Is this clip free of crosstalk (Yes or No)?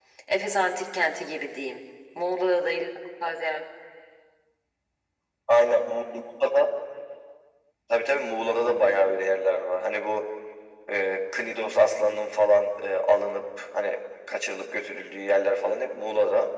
Yes